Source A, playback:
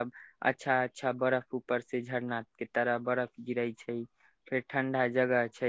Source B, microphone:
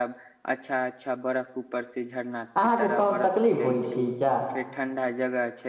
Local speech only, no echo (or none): अहाँके कोनो तकलीफ होइ छी क्या